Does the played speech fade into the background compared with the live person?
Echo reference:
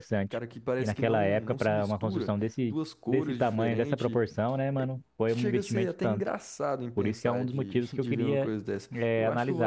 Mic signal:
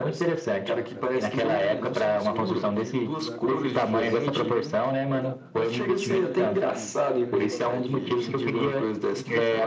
No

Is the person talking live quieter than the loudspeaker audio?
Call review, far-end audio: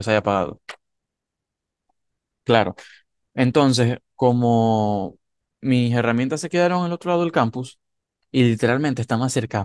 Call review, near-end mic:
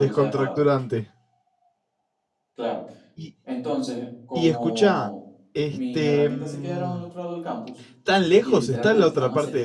No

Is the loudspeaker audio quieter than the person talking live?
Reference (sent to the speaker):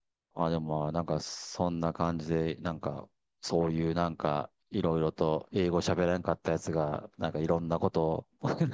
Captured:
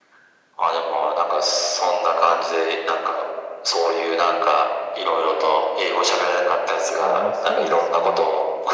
No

